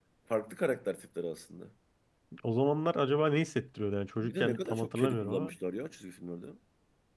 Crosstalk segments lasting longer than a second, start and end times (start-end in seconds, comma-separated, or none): 4.2-5.5